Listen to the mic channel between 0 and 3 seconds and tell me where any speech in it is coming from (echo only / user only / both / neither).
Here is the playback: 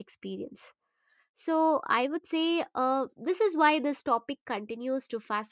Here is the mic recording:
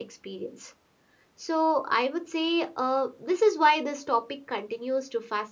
echo only